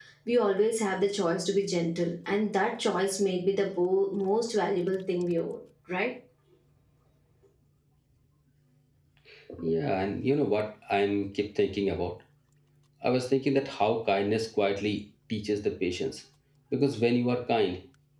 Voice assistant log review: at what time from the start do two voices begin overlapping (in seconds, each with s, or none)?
none